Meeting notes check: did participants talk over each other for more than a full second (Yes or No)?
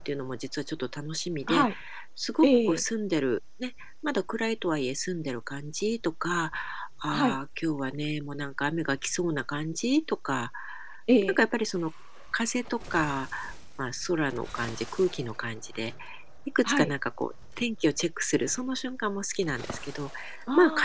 No